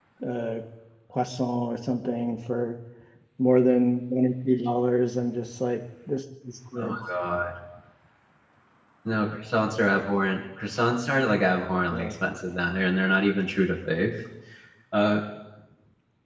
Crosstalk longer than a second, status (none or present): none